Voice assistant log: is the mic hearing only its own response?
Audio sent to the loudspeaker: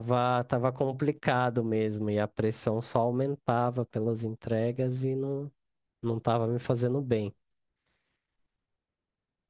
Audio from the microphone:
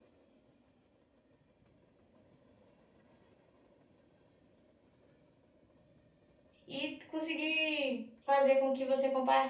No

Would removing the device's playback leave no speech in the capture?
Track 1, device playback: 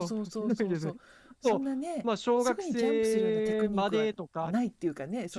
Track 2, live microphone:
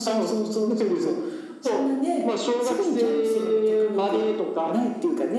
Yes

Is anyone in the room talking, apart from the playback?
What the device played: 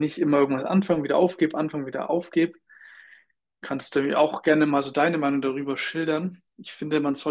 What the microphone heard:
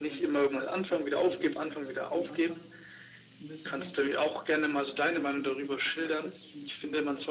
Yes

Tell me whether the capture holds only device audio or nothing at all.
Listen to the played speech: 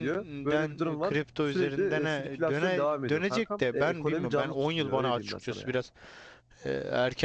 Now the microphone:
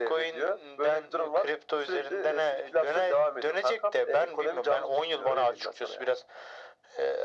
Yes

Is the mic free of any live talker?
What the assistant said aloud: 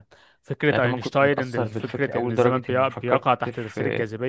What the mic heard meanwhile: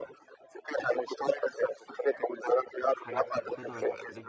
No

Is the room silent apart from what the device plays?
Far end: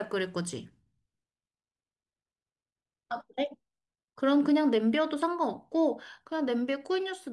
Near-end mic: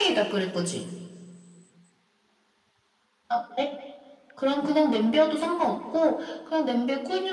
Yes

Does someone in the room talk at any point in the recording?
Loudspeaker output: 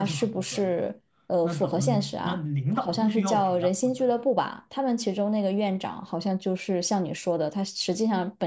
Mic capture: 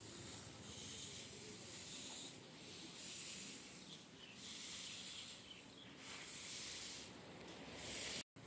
No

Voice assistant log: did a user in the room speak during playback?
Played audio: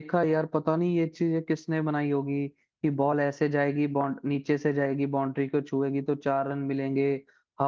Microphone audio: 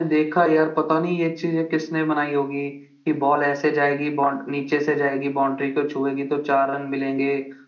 No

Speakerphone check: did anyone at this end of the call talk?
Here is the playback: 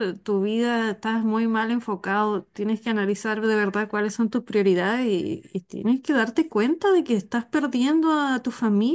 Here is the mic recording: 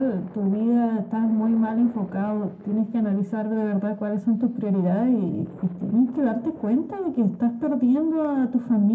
No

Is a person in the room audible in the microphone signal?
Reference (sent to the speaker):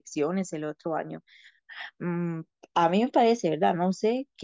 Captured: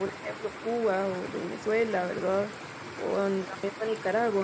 Yes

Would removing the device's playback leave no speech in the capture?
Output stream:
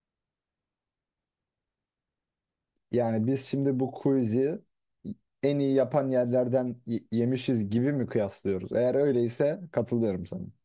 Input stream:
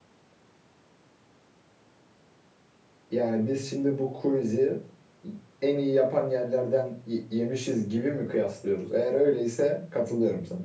Yes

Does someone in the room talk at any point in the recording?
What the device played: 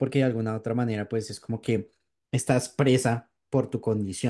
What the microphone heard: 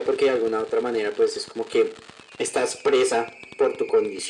No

